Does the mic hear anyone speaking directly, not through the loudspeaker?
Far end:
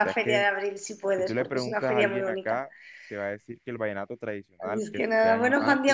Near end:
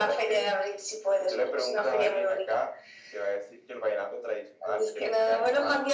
No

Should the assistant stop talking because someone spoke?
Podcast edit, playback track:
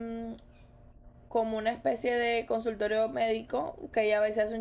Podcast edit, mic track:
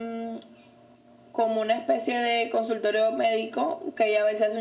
No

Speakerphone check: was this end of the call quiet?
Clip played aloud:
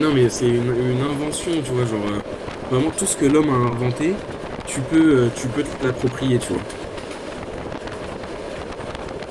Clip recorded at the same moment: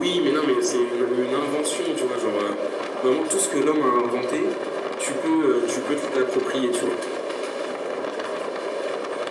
Yes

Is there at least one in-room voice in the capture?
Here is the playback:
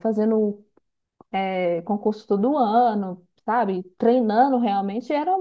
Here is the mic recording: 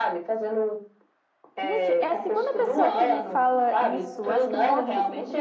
Yes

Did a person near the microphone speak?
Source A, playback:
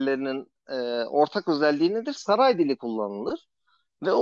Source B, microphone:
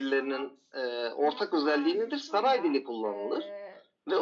Yes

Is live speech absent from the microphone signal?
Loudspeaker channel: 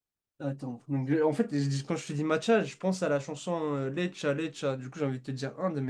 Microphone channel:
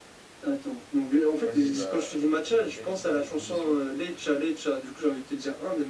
No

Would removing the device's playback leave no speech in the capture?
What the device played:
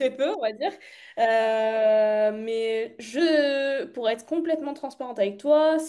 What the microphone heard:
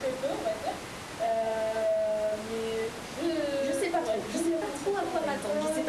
No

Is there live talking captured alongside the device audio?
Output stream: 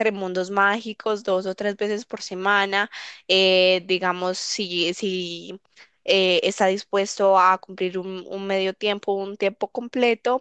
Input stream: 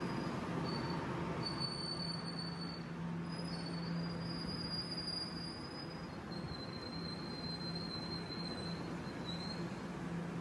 No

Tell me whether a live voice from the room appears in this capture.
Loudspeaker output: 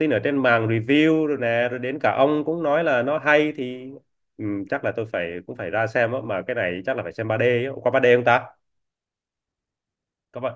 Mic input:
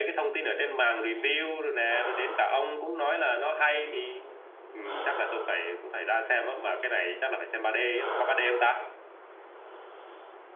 No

